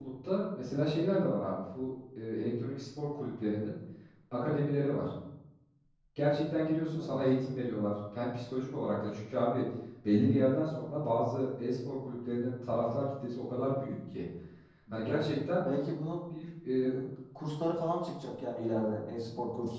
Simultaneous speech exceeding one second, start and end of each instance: none

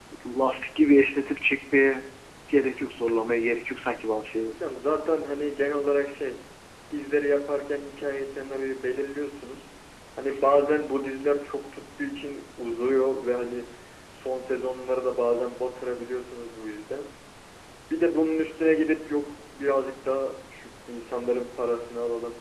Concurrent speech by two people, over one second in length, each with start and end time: none

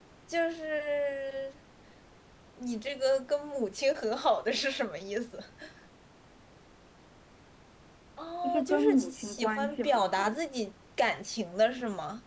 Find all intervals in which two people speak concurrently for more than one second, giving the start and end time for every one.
8.4-10.4

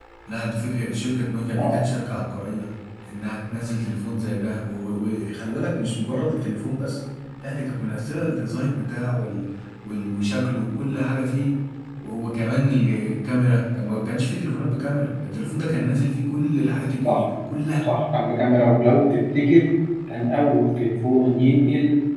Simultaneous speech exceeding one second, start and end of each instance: none

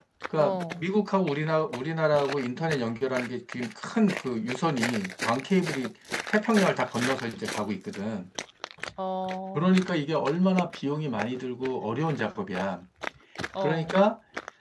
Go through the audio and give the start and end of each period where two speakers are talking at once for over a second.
none

